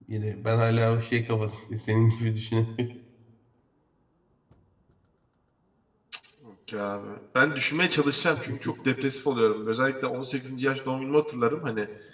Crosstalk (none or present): none